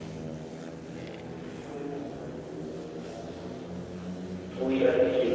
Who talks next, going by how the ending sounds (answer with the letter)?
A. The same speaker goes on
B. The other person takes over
B